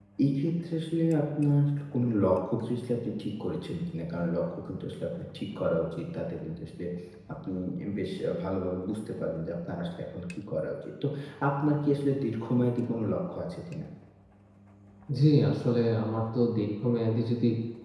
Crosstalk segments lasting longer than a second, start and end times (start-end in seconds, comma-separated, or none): none